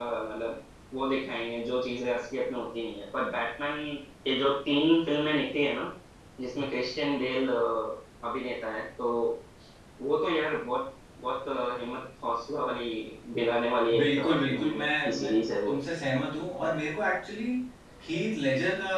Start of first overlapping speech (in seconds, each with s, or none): 13.9 s